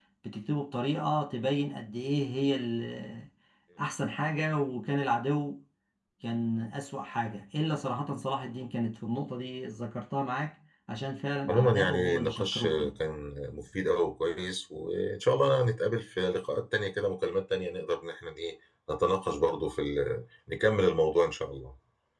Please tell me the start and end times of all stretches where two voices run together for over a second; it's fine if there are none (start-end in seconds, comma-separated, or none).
11.5-12.9